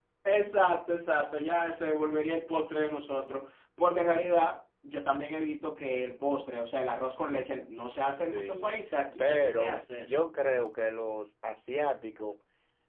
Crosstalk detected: Yes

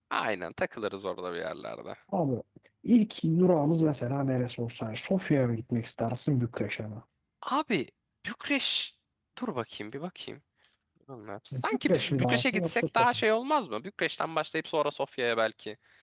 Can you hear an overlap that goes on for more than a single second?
Yes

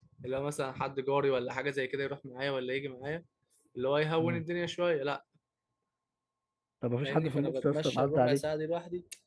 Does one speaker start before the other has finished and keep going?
Yes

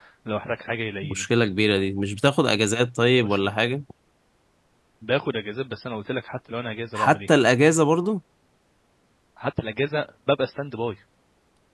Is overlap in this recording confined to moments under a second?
Yes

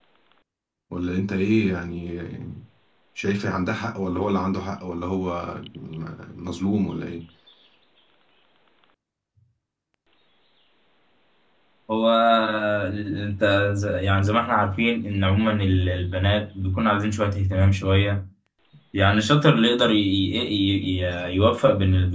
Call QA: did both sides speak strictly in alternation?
Yes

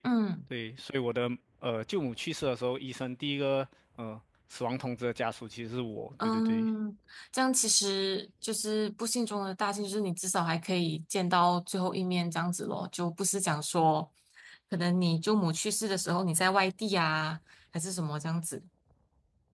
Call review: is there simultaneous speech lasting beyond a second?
No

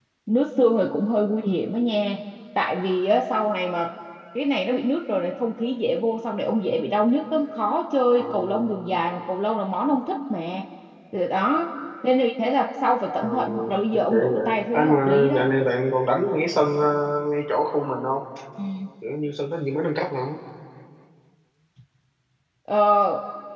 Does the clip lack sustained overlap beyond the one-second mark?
No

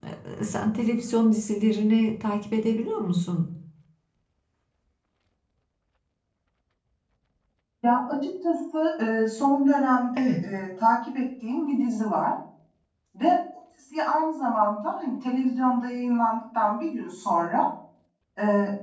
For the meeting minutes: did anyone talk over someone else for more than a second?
No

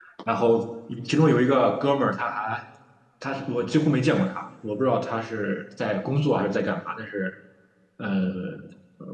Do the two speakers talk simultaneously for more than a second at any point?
No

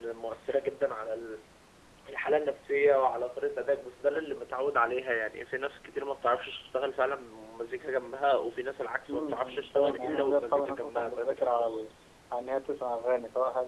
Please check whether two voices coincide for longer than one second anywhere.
Yes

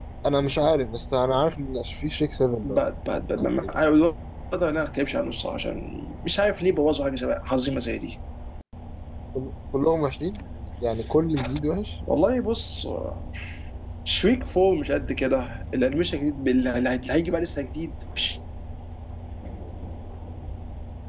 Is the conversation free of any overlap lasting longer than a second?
Yes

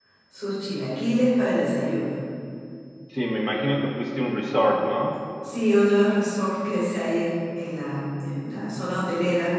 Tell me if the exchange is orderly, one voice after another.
Yes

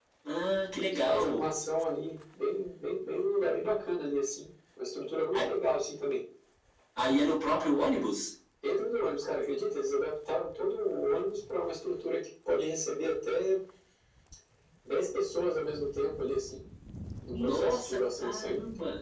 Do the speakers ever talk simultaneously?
Yes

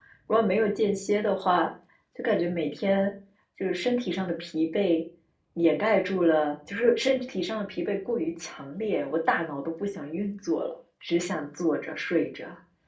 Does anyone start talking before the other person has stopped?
No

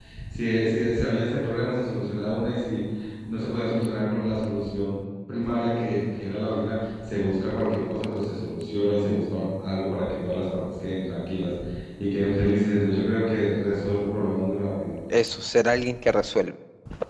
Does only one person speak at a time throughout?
Yes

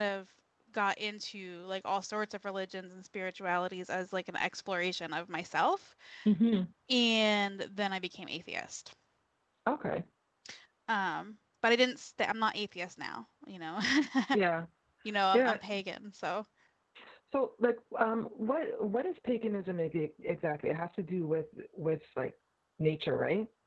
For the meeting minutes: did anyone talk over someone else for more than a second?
No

